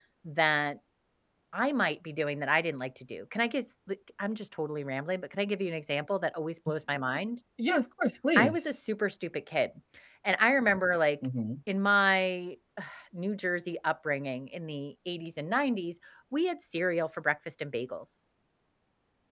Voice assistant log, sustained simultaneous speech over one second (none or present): none